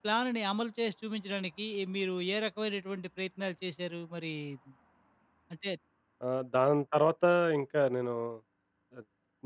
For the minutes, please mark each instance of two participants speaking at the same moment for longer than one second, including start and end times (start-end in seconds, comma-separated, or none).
none